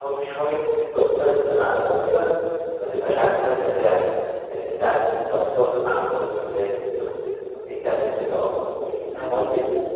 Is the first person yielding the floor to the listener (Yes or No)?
Yes